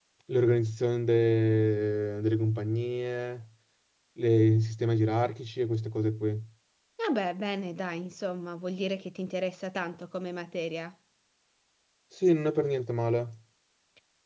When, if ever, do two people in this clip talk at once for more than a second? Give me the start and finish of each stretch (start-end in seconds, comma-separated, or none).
none